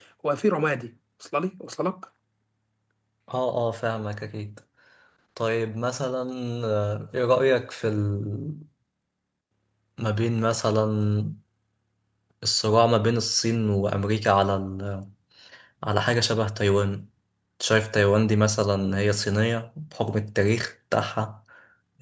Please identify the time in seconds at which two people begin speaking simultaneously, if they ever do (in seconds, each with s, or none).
none